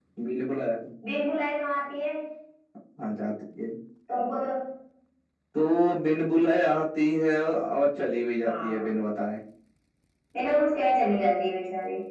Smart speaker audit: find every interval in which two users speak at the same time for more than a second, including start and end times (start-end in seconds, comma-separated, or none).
none